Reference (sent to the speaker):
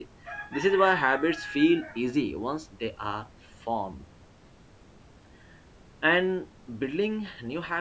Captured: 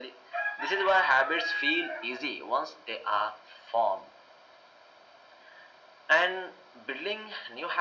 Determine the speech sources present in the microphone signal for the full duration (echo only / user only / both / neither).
echo only